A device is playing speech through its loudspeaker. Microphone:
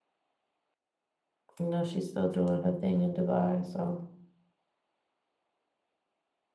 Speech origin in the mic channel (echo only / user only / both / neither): user only